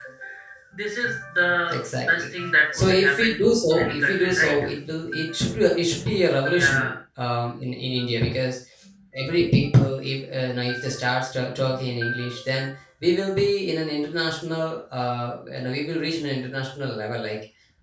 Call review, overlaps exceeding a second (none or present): present